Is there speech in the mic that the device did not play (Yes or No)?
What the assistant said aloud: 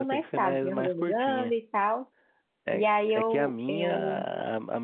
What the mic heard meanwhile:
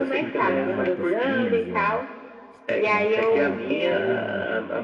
Yes